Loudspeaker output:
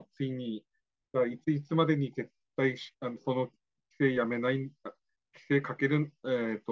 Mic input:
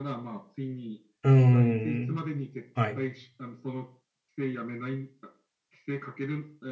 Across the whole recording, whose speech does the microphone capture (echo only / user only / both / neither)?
both